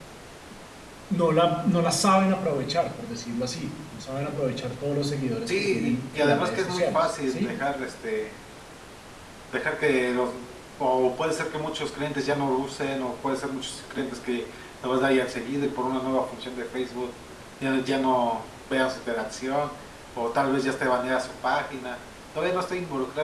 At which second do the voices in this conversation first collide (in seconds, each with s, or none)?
5.5 s